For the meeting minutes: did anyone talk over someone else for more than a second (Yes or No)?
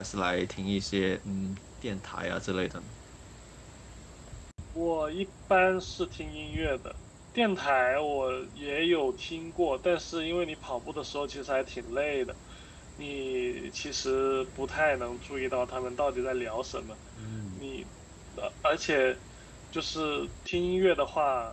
No